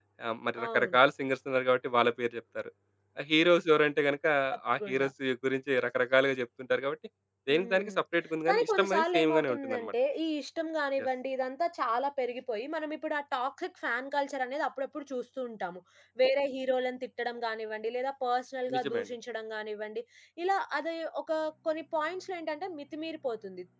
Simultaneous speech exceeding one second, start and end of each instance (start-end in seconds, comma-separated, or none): 8.5-9.9